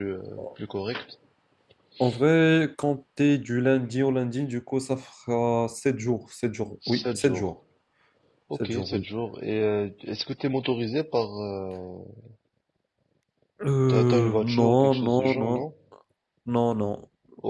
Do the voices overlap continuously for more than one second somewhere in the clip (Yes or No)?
Yes